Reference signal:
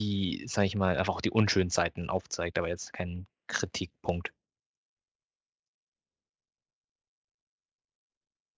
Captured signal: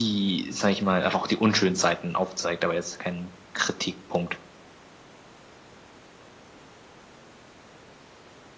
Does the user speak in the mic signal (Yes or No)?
No